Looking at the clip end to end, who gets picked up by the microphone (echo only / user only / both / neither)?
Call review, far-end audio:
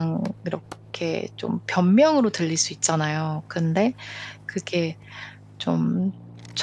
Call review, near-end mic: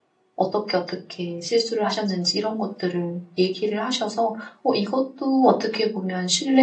user only